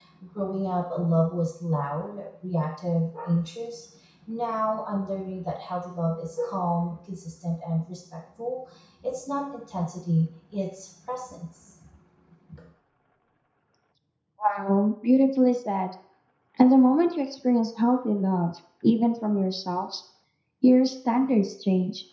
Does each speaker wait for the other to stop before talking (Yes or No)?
Yes